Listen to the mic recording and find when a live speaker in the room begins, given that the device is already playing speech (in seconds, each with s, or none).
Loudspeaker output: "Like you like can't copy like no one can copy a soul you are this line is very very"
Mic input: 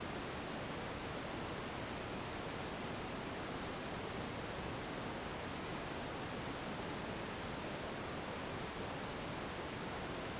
none